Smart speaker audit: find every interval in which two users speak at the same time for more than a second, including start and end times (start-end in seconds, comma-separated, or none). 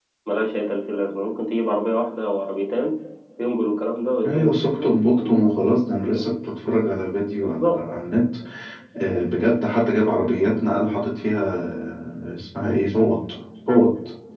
4.2-5.7